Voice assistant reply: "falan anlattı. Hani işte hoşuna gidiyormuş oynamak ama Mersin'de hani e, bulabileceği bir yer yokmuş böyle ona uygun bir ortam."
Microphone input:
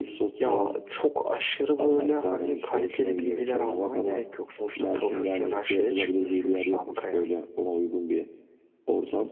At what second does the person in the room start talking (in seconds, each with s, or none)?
0.4 s